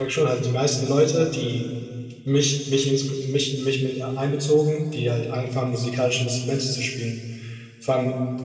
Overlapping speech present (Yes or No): No